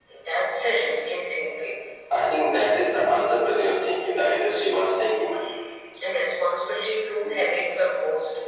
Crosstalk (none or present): none